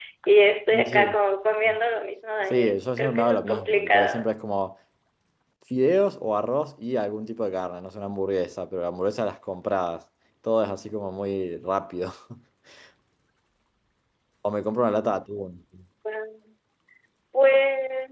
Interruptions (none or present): present